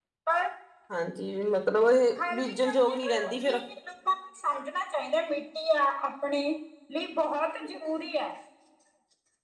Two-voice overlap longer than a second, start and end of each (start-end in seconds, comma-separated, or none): 2.3-3.6